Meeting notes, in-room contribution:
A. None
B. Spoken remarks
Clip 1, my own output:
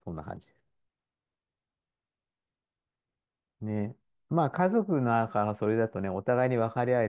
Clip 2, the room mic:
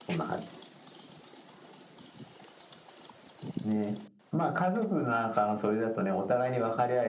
A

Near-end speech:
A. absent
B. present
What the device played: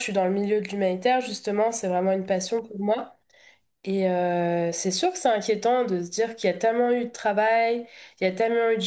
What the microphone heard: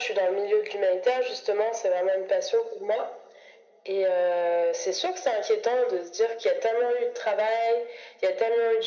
A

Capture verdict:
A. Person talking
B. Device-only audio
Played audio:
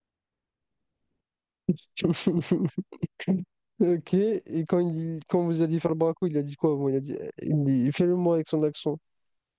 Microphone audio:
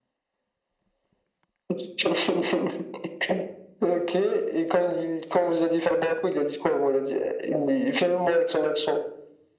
B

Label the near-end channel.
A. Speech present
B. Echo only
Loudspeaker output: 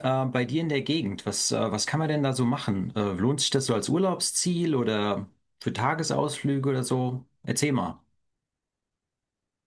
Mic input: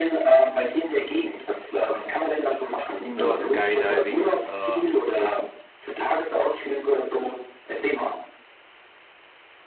A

